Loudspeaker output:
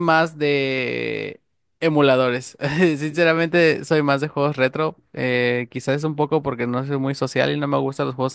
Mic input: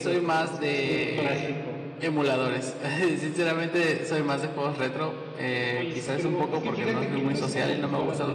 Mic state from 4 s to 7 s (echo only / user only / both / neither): both